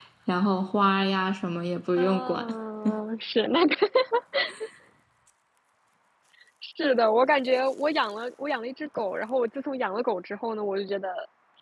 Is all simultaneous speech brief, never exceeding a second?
Yes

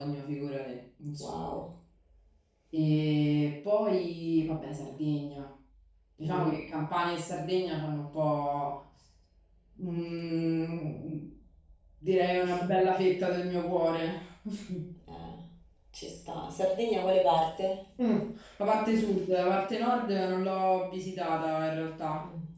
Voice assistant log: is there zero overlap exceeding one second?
Yes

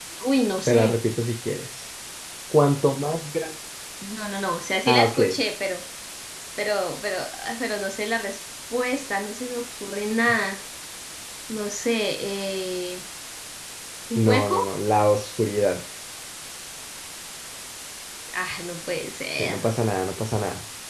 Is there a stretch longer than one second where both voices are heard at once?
No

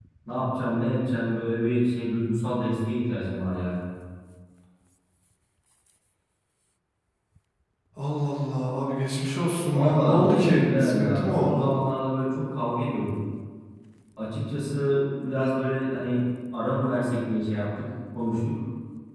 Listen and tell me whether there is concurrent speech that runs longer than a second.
Yes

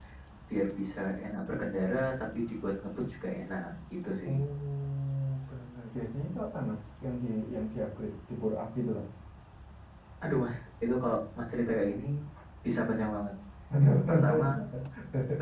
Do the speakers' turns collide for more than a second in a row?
No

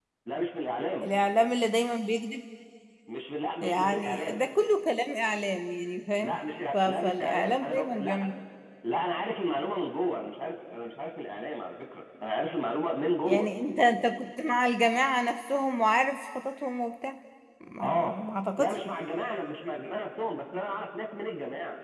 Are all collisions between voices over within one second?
No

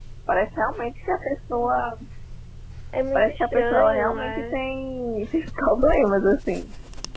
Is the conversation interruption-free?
No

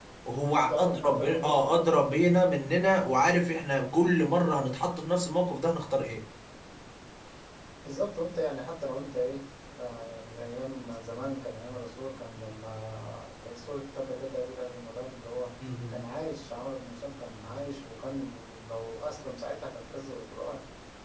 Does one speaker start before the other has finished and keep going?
Yes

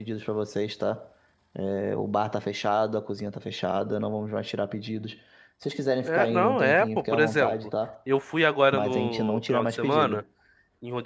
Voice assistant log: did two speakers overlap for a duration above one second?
Yes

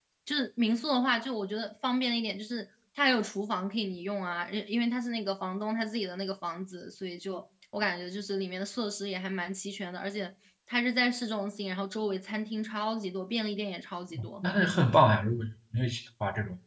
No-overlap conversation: Yes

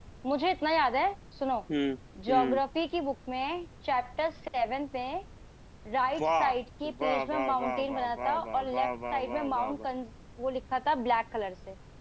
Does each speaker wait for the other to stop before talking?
No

